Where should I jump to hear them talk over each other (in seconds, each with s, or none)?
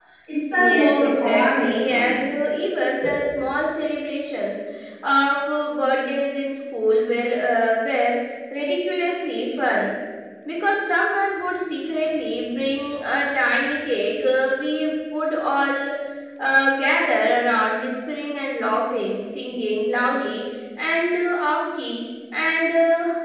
0.5 s